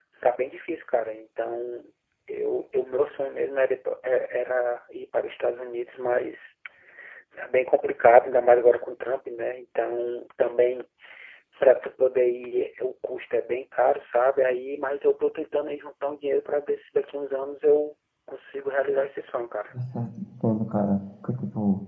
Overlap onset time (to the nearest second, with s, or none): none